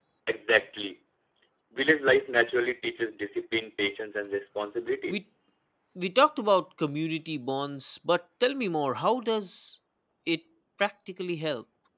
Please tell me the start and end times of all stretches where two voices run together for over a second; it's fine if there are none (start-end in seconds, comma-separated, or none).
none